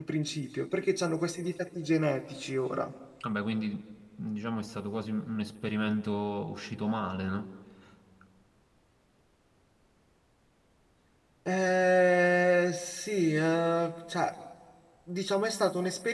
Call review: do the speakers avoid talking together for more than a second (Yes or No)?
Yes